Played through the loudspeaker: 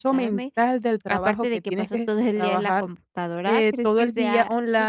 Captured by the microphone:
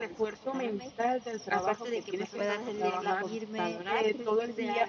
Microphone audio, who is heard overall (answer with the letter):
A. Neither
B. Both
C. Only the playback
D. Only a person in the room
B